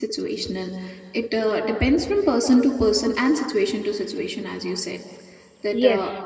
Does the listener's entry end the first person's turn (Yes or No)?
No